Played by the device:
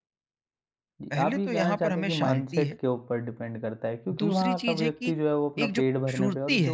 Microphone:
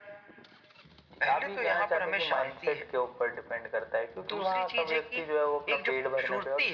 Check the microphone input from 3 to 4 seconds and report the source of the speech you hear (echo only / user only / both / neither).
echo only